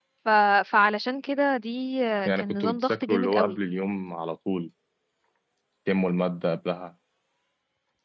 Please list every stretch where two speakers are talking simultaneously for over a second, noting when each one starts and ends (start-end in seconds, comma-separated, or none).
2.2-3.6